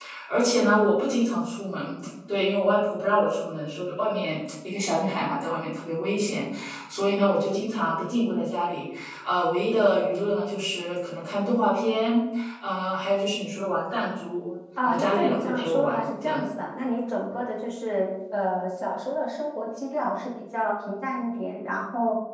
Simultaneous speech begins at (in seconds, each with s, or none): 14.8 s